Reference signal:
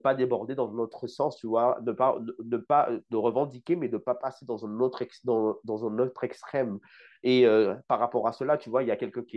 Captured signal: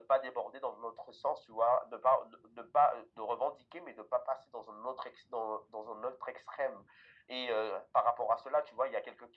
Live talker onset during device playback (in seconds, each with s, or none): none